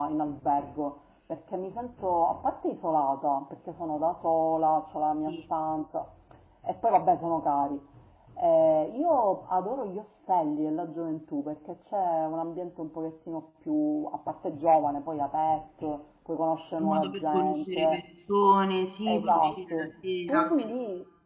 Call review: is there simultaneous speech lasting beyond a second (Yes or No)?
Yes